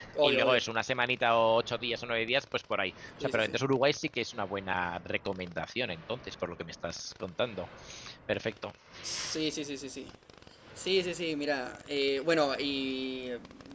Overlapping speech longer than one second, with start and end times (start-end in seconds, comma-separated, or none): none